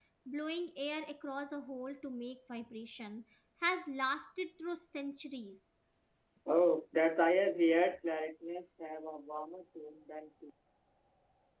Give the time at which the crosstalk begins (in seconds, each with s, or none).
none